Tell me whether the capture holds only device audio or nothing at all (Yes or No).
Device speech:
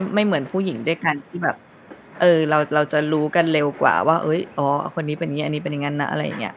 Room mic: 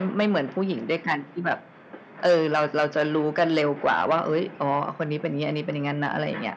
Yes